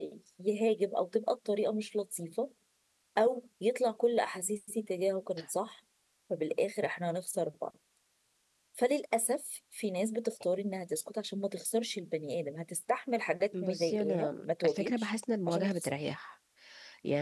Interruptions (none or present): present